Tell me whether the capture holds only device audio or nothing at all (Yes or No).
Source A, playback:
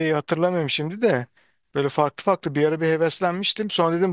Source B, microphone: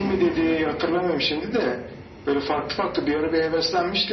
Yes